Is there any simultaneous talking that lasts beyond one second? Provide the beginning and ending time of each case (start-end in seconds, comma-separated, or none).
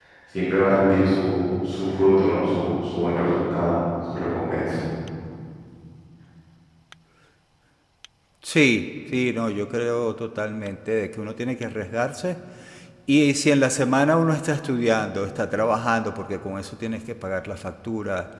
none